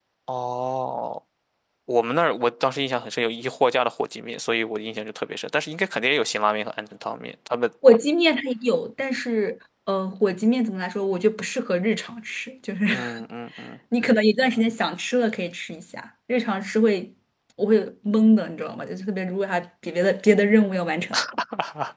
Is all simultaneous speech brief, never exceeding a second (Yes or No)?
Yes